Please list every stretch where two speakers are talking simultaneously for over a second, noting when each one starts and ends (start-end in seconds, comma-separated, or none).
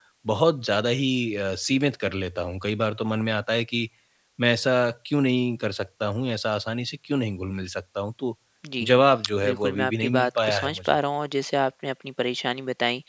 9.4-11.0